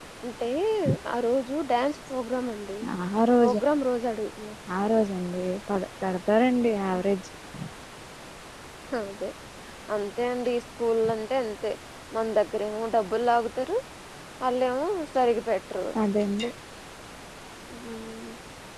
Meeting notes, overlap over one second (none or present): none